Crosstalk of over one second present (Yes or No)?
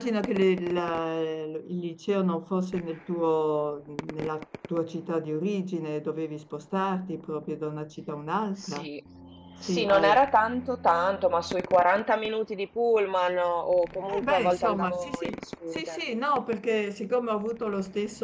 Yes